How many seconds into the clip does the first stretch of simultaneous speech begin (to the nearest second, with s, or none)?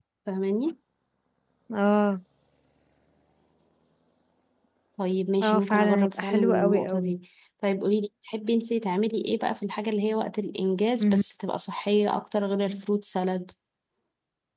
5 s